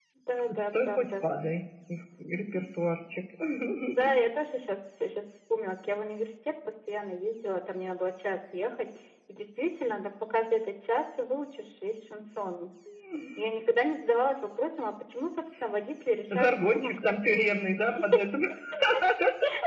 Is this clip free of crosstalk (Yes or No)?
No